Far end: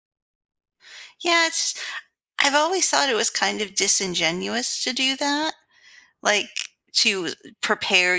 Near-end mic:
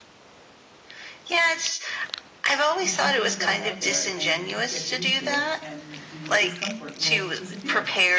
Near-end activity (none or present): present